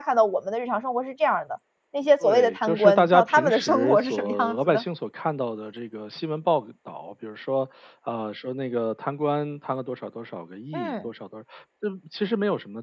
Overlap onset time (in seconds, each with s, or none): 2.2 s